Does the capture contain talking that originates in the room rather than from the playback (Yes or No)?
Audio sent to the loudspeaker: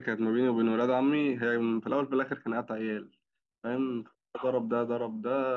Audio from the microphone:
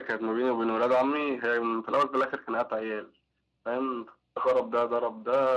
No